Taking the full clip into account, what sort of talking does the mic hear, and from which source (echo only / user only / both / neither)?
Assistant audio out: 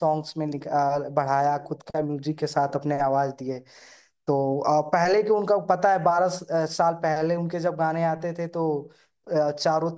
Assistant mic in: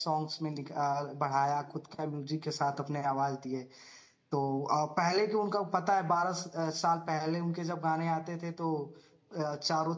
echo only